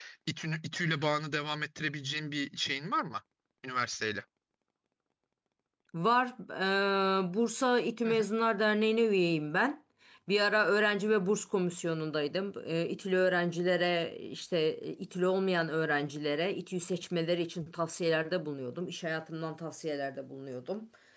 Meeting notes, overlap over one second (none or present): none